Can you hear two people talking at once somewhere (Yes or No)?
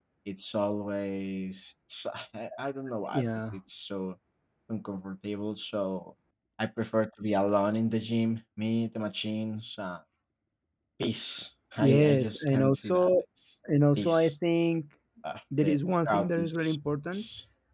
Yes